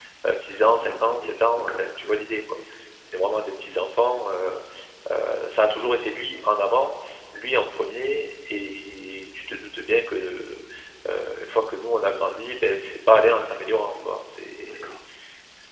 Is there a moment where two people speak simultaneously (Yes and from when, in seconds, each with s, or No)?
Yes, from 0.9 s